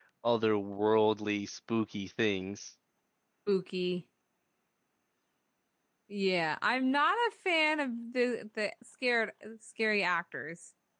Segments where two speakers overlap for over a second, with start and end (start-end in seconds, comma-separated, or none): none